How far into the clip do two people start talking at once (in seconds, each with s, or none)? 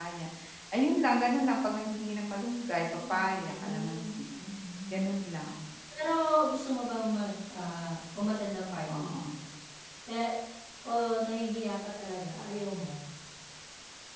2.8 s